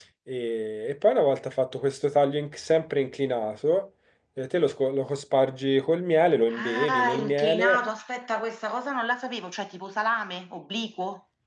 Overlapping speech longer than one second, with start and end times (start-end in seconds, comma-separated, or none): 6.6-7.8